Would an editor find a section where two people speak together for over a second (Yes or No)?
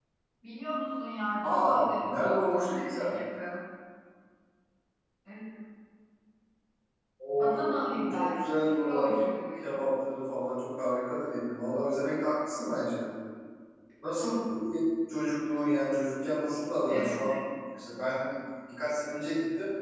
Yes